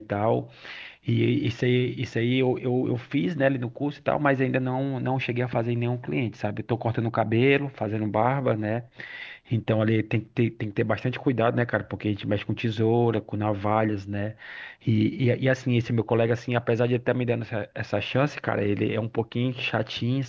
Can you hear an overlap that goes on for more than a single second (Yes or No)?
No